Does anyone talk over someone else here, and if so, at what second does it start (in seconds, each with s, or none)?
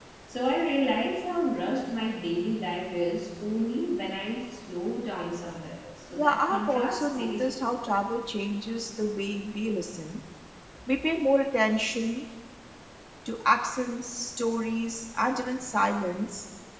6.2 s